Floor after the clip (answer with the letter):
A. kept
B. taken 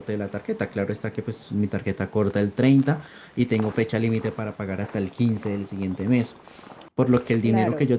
A